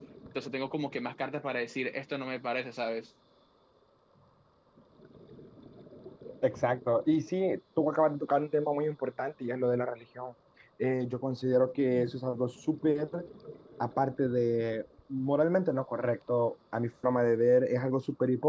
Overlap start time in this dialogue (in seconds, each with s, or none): none